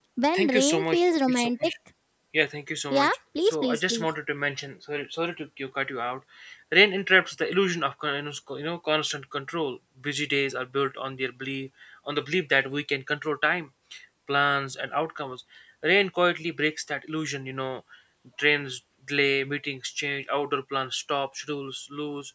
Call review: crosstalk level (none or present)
present